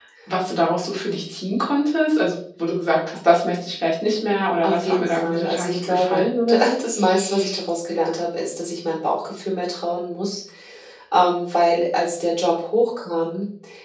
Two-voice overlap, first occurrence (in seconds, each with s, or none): 4.6 s